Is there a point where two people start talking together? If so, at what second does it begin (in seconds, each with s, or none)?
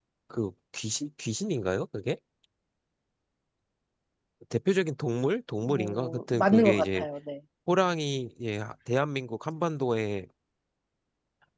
5.7 s